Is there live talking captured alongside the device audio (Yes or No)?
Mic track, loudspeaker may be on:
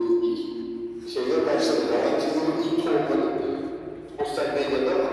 No